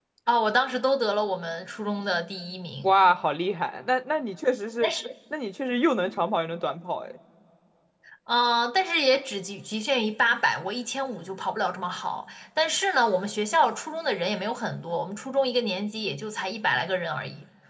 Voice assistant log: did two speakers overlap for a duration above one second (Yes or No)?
No